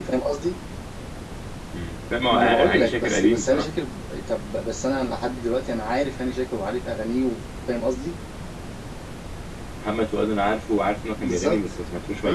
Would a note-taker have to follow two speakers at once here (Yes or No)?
Yes